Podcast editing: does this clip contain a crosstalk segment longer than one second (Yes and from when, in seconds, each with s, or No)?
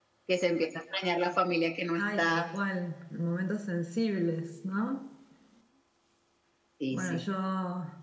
No